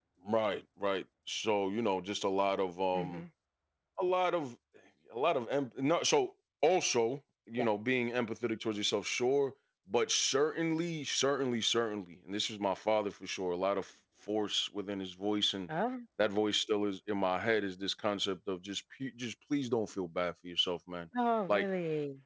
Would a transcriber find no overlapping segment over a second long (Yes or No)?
Yes